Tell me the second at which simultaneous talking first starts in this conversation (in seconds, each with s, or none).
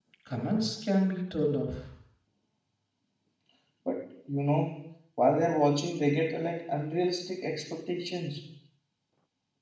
none